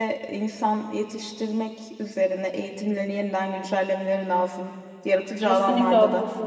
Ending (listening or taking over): taking over